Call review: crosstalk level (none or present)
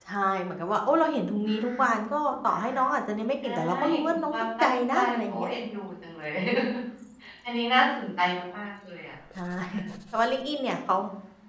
present